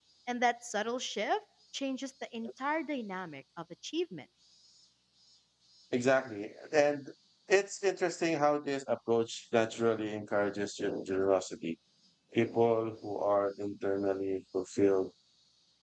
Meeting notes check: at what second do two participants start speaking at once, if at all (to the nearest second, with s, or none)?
none